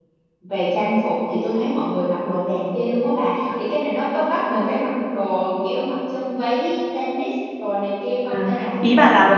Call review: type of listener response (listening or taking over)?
taking over